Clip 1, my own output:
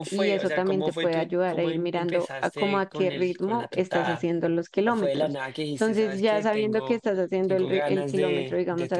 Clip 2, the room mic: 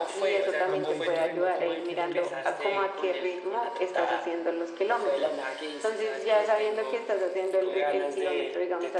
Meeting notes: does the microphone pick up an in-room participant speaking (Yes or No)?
Yes